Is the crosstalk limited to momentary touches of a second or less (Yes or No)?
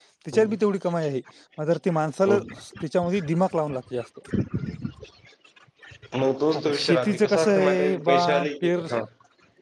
No